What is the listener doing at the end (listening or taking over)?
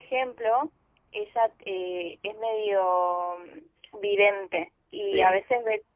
listening